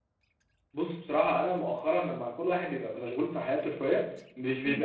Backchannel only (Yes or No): Yes